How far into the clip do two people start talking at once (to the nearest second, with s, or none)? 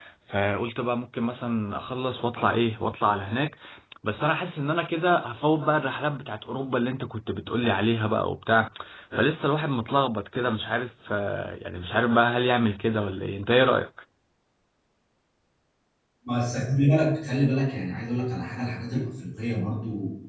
none